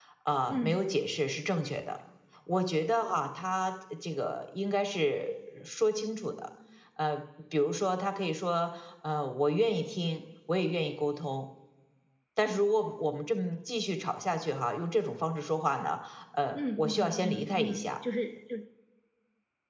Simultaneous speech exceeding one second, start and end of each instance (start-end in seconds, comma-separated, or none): 16.5-17.8